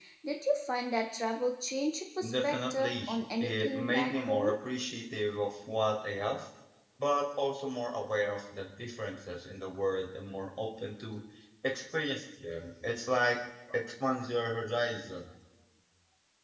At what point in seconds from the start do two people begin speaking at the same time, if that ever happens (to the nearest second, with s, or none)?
2 s